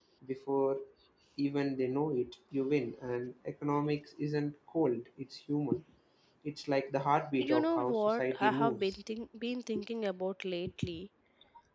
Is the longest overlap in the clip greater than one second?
Yes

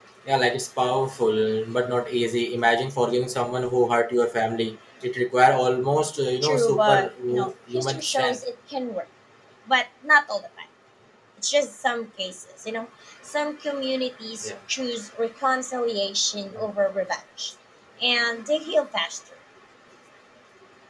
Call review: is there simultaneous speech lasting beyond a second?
Yes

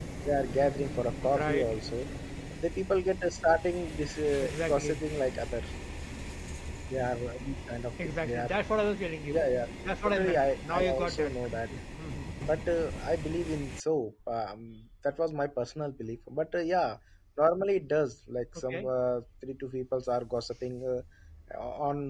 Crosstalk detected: Yes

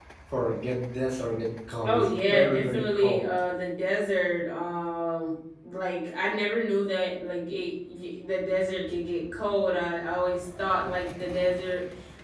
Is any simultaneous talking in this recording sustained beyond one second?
Yes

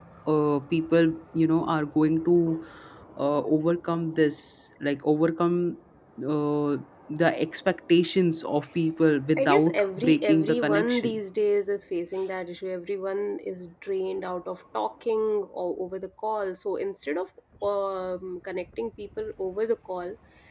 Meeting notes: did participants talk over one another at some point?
Yes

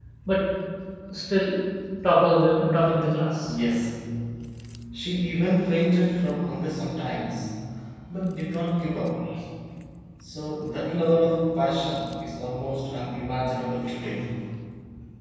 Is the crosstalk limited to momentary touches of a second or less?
Yes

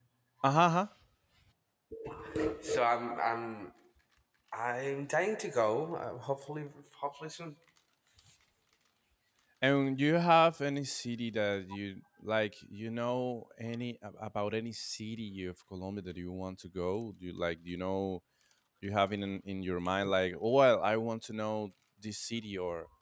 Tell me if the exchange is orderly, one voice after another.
Yes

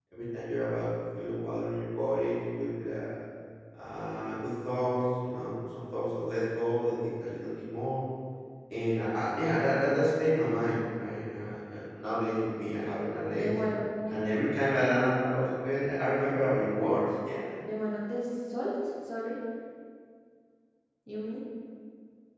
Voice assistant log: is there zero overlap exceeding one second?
Yes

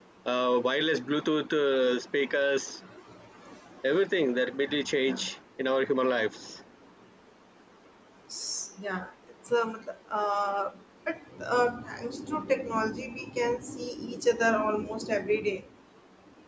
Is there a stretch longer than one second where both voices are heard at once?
No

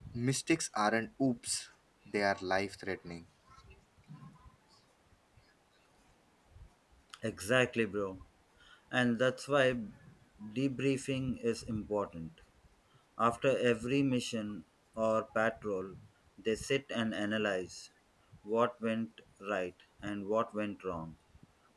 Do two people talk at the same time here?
No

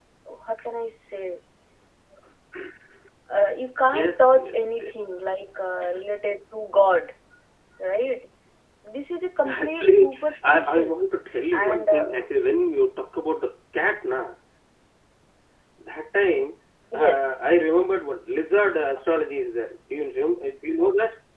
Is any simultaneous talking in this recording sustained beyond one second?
Yes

